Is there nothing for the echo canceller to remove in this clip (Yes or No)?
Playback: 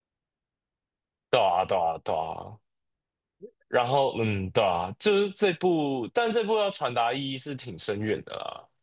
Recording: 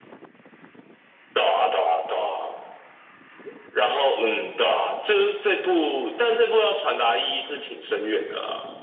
No